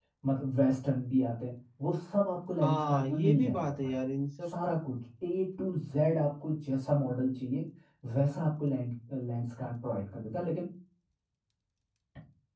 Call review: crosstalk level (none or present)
present